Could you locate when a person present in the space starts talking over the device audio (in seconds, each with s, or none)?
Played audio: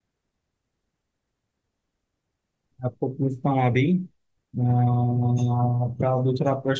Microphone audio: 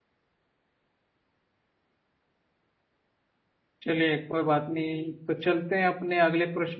3.8 s